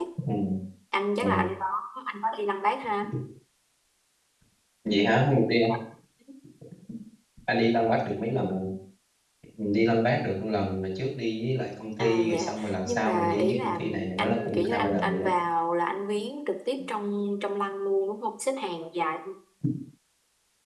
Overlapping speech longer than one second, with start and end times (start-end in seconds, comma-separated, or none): 12.0-15.3